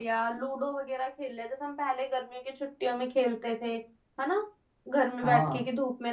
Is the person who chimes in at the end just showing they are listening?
Yes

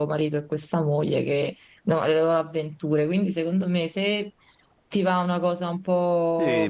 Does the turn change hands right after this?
Yes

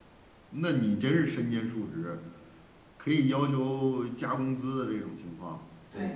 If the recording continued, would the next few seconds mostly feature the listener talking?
Yes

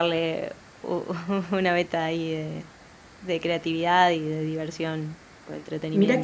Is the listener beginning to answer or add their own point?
Yes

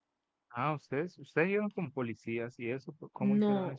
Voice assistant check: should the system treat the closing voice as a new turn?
Yes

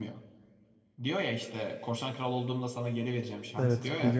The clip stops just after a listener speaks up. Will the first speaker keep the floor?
No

